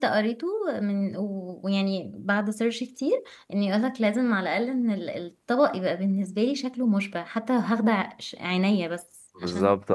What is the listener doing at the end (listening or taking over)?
taking over